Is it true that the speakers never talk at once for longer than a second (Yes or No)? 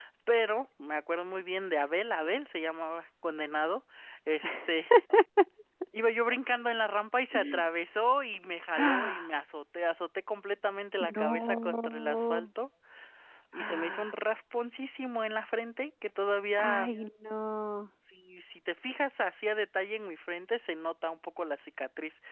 No